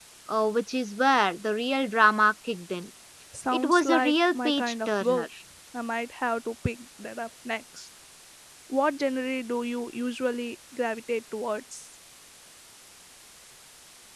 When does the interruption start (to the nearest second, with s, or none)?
4 s